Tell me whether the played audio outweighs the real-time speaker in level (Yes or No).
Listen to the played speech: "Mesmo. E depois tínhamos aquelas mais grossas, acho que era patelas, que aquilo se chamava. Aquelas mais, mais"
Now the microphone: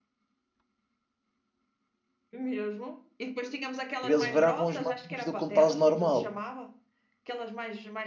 No